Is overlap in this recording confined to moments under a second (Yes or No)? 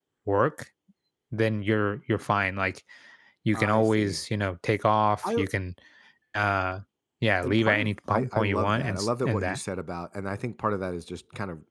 No